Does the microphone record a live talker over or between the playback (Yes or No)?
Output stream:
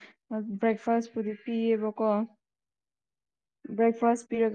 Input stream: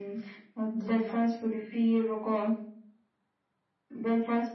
Yes